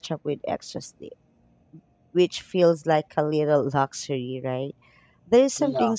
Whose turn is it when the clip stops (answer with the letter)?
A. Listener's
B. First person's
B